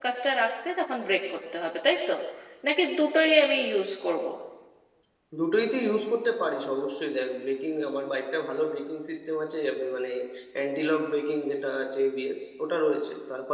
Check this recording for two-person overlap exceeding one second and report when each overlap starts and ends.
none

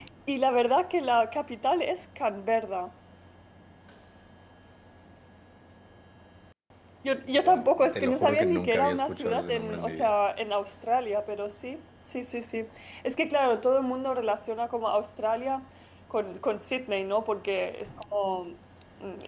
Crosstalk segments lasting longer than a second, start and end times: 7.2-10.1

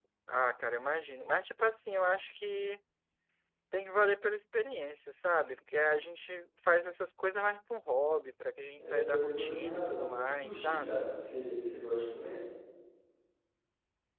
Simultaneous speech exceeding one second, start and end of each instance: 8.8-11.1

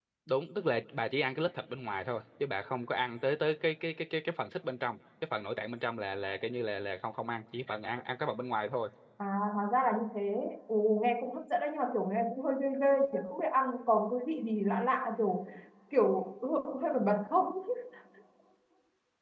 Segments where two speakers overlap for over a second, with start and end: none

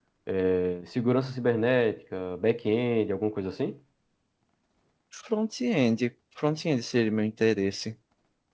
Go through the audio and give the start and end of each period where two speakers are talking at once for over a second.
none

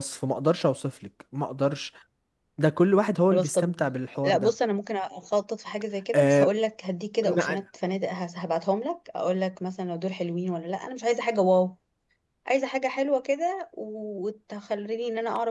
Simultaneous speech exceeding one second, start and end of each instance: none

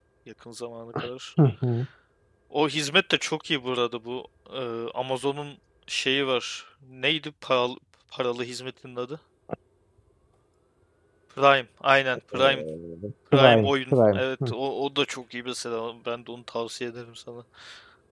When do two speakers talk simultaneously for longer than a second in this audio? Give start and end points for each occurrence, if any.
13.3-14.5

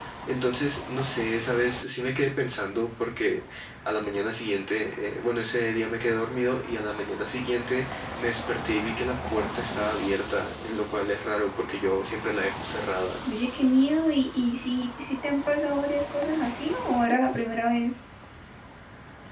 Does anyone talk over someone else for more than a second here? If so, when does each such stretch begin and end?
none

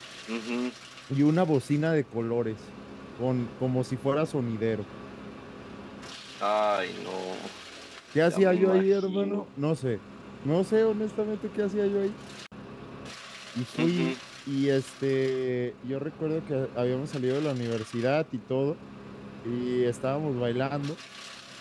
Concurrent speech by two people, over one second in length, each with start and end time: 8.2-9.4

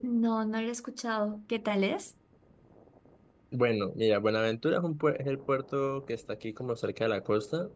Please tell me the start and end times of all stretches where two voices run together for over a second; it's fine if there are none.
none

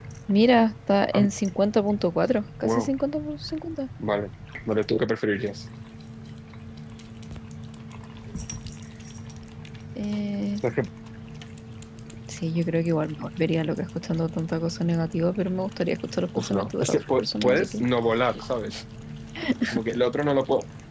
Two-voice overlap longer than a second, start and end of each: 16.4-17.8

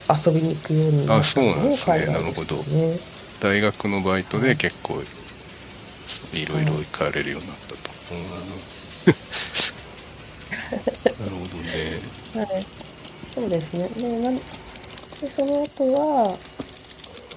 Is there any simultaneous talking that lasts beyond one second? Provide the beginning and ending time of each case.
1.1-2.6

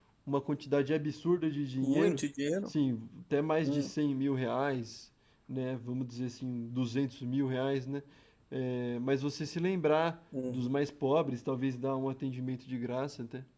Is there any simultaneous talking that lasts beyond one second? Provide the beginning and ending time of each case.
none

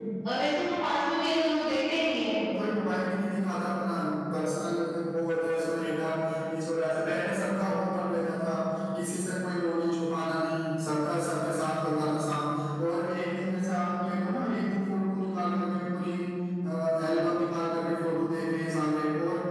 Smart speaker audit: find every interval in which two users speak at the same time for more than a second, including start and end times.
none

